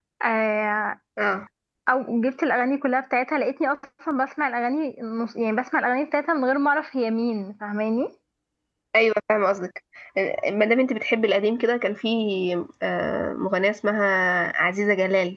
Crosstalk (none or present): none